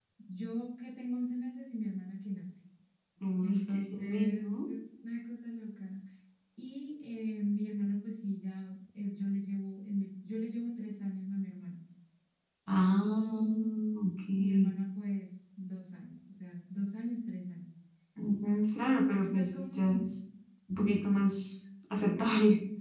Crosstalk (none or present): present